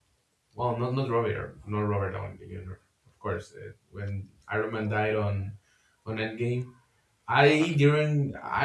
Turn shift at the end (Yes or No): No